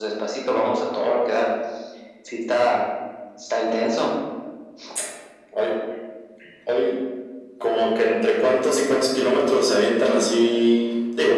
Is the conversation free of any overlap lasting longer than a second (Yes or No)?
Yes